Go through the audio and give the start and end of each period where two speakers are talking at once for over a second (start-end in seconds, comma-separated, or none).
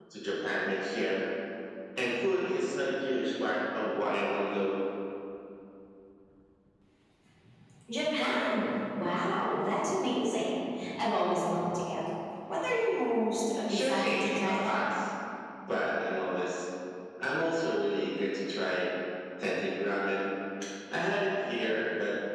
13.7-14.9